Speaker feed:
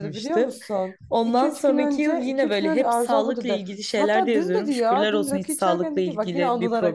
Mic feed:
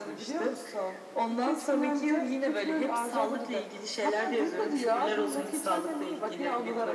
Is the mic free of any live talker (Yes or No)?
Yes